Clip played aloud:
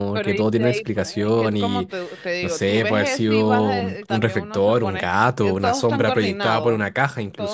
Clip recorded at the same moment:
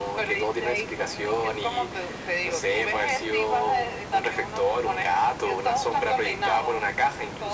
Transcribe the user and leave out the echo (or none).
none